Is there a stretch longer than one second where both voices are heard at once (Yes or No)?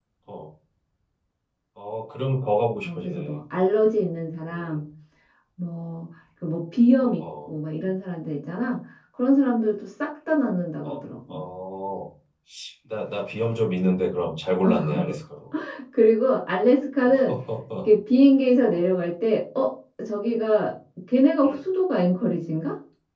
No